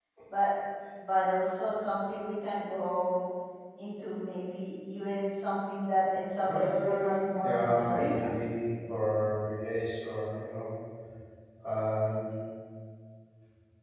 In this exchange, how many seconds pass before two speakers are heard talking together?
6.4 s

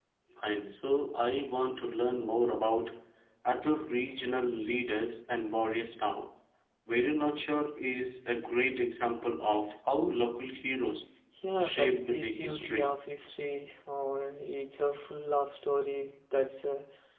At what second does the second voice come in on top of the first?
11.6 s

